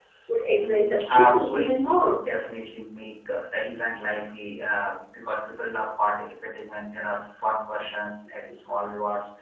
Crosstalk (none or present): present